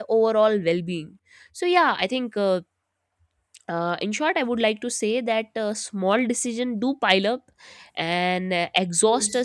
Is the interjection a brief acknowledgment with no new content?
Yes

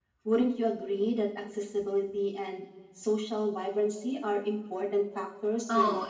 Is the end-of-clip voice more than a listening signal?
Yes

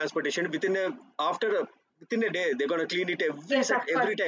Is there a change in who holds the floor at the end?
Yes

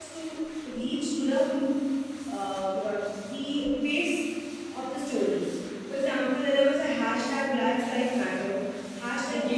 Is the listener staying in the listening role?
Yes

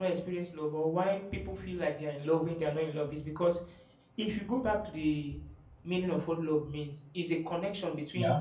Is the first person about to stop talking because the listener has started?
No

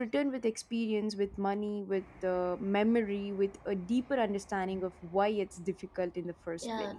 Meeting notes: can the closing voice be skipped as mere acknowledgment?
No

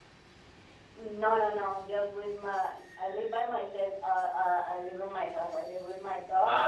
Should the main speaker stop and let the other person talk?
Yes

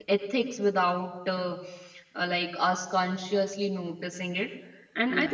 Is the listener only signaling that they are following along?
Yes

